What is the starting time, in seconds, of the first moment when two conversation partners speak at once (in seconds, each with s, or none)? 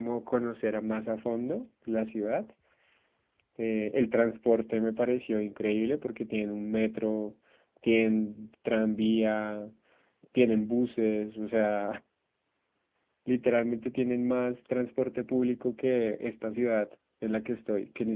none